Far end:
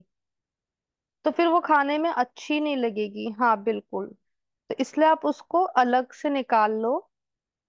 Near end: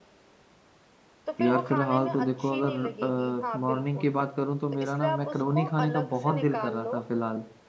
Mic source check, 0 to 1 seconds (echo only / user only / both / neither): neither